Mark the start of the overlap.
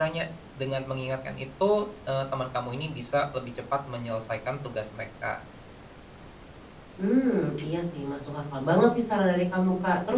none

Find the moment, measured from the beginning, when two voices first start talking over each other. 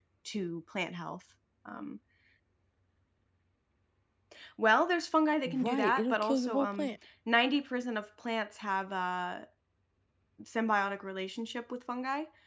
5 s

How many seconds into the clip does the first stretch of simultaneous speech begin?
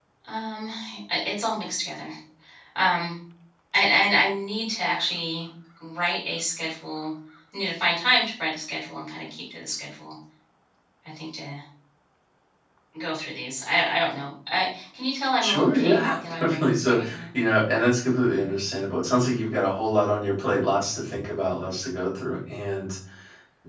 15 s

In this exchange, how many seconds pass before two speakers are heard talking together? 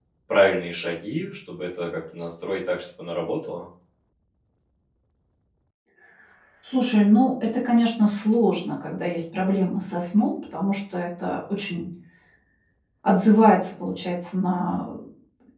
none

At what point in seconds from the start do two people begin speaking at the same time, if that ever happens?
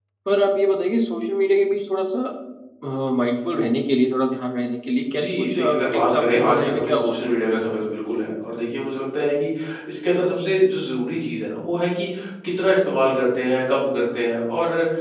5 s

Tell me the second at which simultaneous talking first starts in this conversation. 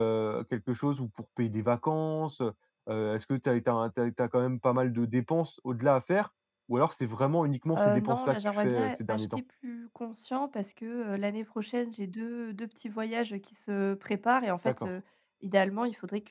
8 s

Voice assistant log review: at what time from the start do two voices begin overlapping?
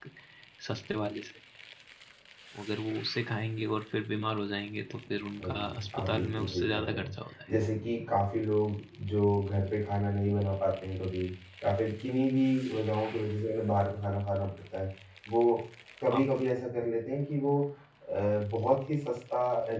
5 s

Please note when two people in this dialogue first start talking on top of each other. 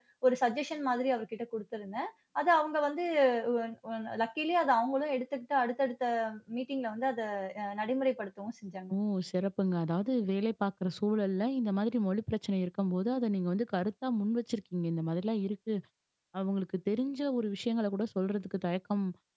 none

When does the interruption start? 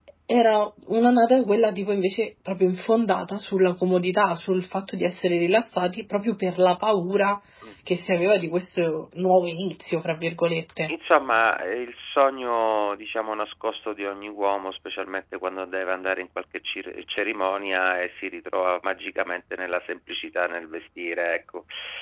none

